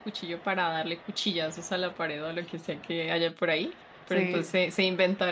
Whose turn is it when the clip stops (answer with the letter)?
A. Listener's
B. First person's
B